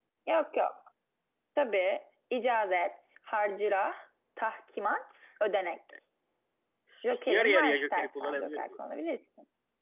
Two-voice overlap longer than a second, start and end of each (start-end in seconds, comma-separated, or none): 7.2-8.6